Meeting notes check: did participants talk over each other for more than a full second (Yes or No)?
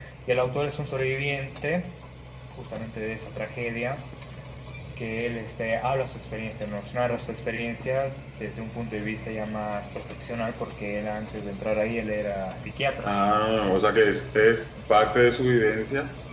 No